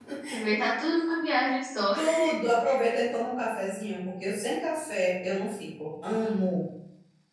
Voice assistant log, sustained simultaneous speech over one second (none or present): none